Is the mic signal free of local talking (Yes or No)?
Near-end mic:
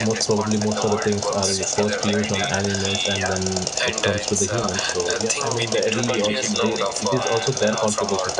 No